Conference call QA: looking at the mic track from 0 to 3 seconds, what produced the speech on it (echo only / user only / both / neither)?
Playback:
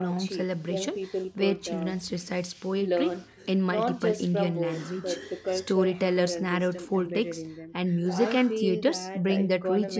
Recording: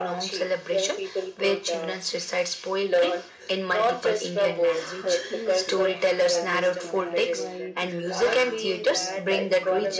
echo only